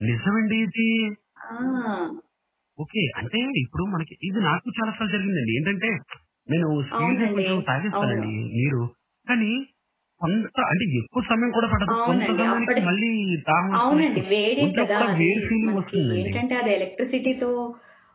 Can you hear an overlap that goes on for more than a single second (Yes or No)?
Yes